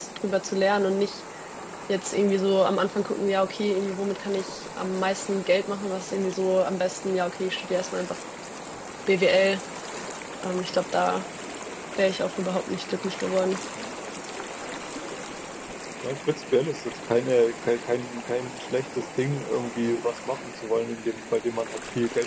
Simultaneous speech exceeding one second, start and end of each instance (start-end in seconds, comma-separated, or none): none